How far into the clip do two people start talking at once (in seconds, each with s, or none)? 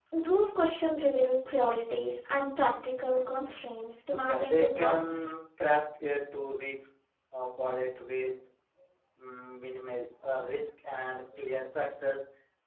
4.1 s